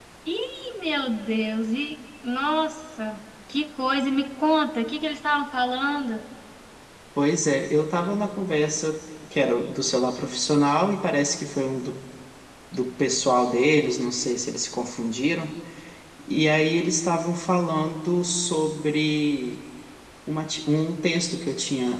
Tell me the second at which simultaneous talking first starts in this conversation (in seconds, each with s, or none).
none